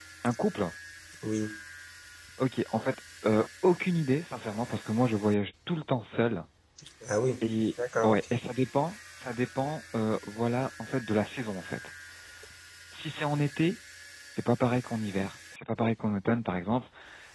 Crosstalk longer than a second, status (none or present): none